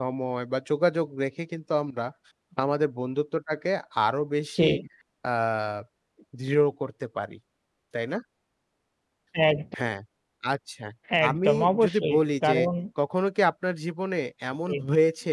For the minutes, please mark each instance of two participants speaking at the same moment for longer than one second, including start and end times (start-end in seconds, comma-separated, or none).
11.3-12.6